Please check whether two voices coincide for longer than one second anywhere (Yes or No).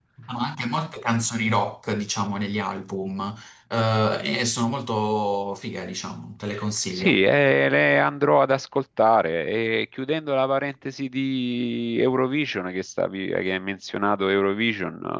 No